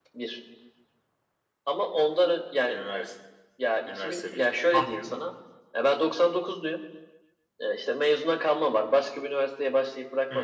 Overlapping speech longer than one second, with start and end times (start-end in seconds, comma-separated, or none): 3.9-5.3